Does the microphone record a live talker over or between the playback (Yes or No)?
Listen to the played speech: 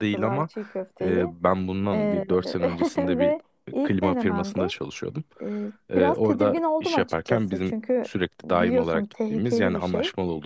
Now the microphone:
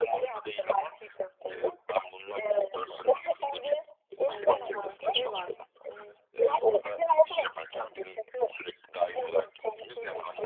Yes